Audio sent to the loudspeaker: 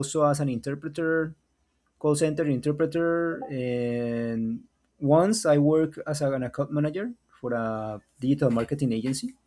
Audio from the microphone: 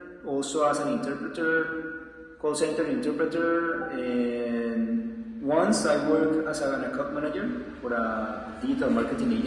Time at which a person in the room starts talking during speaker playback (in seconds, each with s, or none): none